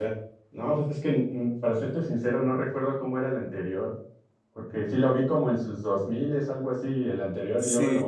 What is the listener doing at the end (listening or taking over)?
listening